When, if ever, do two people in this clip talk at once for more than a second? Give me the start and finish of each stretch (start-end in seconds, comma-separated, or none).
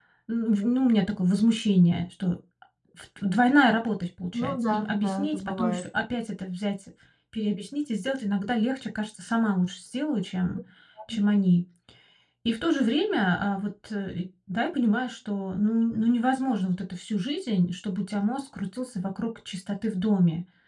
4.3-5.8